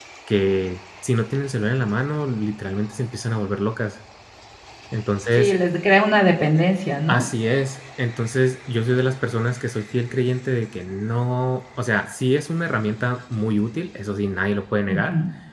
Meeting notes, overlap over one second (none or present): none